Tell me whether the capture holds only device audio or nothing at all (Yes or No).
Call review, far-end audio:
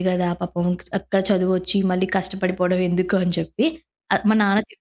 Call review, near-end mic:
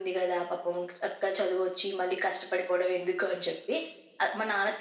Yes